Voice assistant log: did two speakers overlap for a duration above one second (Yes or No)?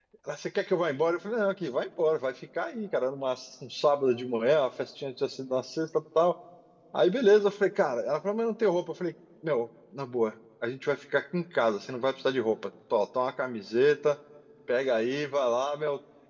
No